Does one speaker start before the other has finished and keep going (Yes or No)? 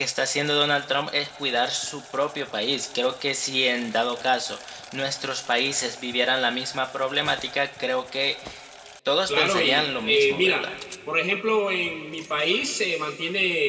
Yes